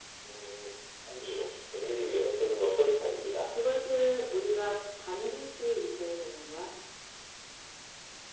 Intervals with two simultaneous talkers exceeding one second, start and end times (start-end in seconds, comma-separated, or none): none